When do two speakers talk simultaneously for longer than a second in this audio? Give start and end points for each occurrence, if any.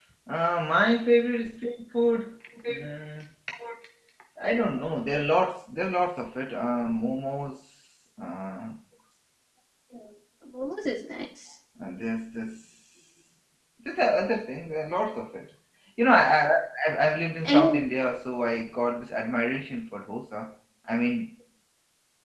none

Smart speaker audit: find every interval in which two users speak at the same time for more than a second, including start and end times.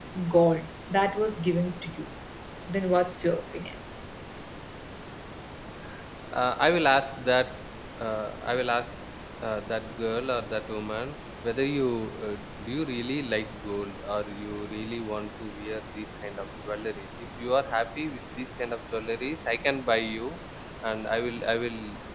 none

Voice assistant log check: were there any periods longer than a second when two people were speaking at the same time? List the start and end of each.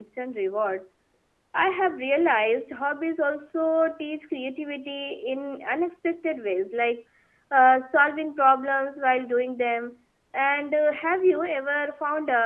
none

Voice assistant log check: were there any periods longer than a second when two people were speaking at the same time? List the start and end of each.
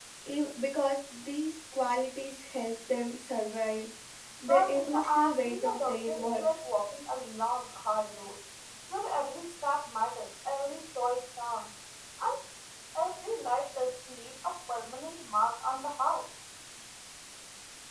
4.5-6.4

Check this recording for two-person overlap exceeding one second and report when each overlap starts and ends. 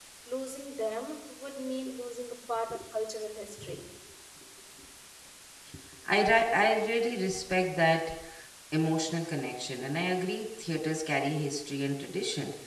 none

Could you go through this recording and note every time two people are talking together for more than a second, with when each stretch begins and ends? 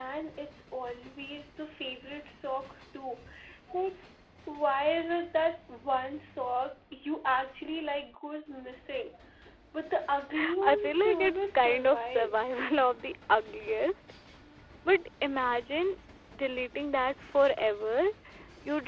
10.6-12.4

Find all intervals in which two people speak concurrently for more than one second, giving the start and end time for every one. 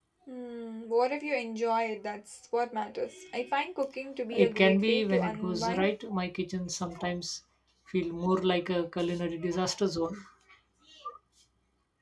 4.3-5.9

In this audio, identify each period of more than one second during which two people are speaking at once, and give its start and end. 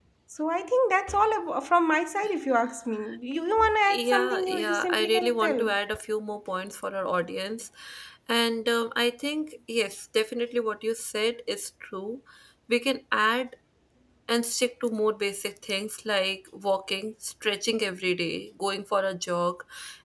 3.9-5.6

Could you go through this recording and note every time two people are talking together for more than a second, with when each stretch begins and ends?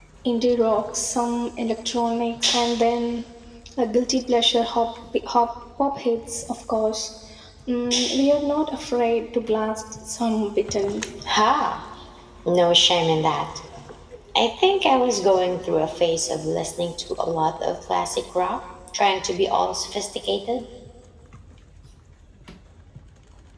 none

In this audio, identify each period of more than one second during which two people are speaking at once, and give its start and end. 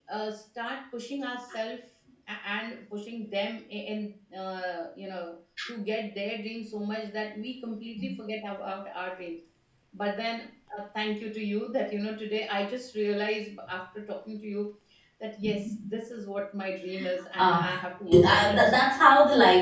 17.4-18.7

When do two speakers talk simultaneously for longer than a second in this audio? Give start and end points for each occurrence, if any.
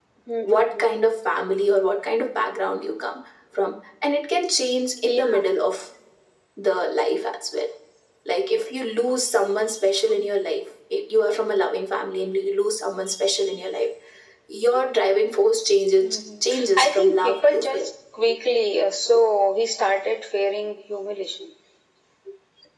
16.0-17.8

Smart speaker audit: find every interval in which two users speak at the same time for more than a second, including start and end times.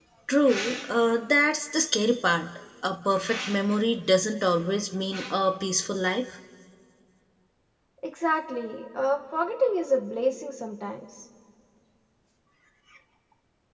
none

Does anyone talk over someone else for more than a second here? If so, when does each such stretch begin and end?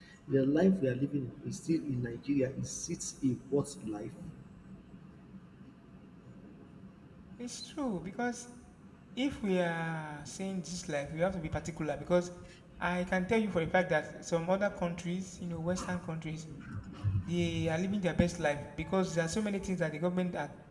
none

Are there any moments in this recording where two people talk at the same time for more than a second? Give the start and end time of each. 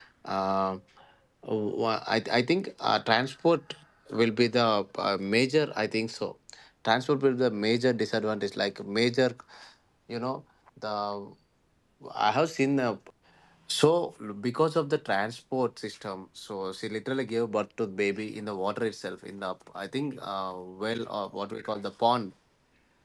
none

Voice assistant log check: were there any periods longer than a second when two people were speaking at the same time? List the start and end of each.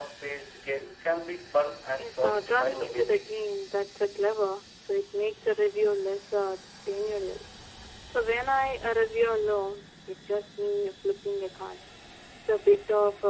2.0-3.4

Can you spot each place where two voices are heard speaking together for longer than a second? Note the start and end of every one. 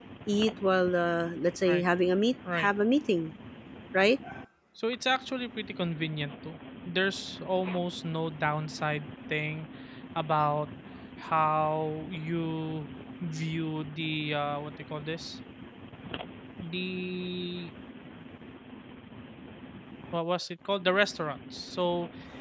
none

